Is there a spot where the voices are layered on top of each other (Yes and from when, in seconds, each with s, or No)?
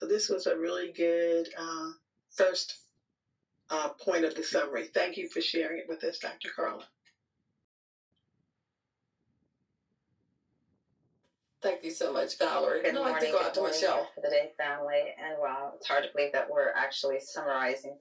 Yes, from 12.8 s